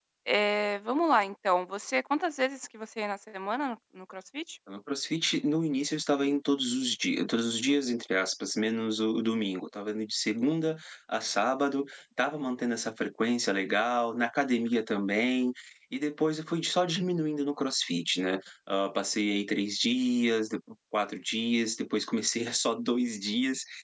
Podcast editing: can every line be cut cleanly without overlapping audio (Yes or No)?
Yes